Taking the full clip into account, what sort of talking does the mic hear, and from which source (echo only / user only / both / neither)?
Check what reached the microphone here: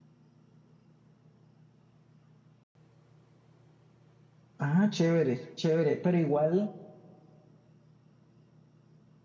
user only